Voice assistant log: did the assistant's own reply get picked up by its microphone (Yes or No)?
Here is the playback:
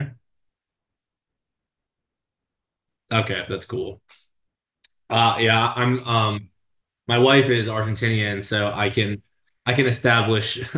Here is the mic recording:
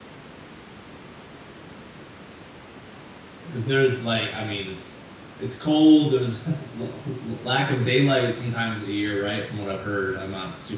No